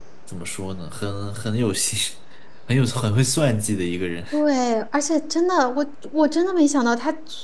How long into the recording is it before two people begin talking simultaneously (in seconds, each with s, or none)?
none